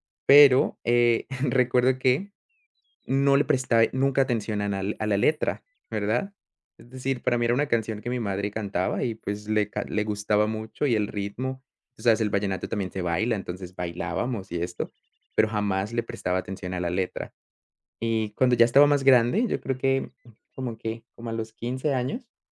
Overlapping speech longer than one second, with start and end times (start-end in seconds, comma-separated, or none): none